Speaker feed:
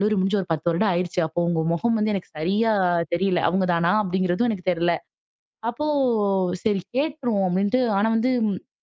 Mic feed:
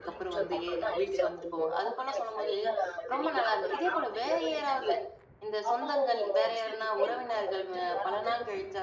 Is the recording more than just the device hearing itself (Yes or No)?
Yes